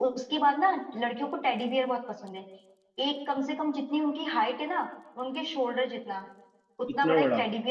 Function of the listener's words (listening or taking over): listening